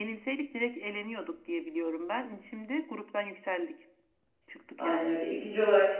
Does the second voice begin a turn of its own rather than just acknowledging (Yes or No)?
Yes